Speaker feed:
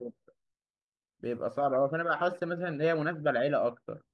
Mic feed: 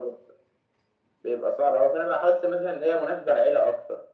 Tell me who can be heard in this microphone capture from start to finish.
echo only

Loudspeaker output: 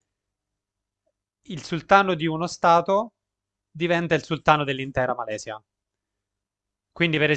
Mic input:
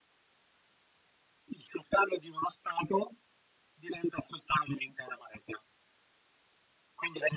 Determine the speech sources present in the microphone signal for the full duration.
echo only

